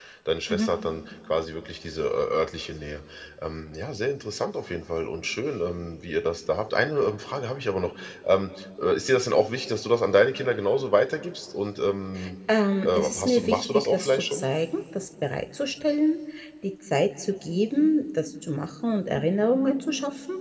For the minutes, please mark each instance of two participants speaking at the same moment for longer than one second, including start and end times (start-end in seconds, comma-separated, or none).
12.8-14.5